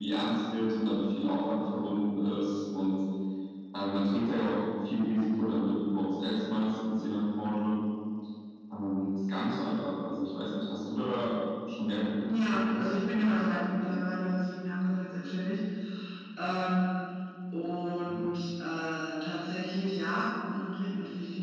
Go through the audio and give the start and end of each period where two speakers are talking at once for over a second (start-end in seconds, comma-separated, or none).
none